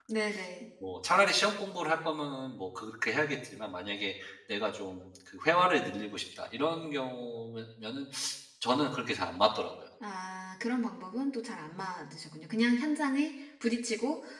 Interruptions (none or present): none